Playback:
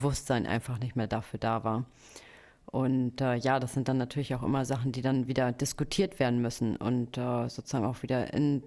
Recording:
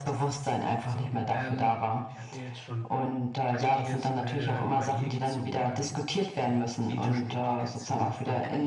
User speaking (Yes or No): Yes